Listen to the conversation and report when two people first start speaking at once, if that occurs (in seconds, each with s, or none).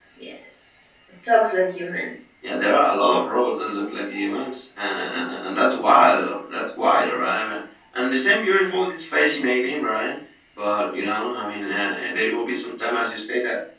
none